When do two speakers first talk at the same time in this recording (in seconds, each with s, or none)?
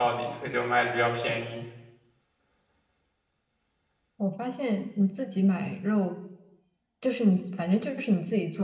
none